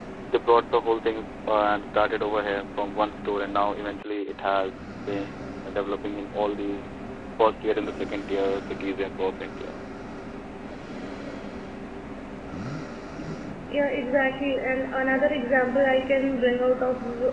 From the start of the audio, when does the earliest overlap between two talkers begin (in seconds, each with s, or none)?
none